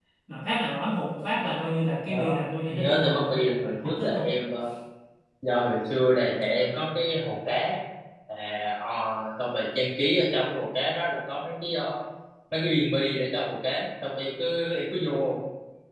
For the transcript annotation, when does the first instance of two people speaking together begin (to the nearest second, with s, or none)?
2 s